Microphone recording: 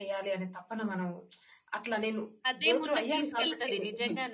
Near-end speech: present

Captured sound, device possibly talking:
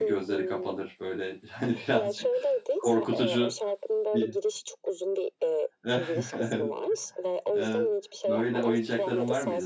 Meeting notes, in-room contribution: present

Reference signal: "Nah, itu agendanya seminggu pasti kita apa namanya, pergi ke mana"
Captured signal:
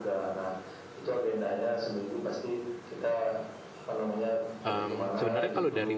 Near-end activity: present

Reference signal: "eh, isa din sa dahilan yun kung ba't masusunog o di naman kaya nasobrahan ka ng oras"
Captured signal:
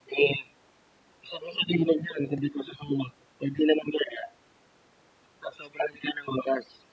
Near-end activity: none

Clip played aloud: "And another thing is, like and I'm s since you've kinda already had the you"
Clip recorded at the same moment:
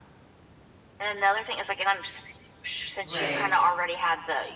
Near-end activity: present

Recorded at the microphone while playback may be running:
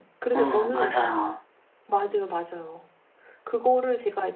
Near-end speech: present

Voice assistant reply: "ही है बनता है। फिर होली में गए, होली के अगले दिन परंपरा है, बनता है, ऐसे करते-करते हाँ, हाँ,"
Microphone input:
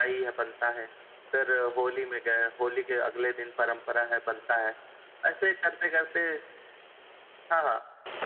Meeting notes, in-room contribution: none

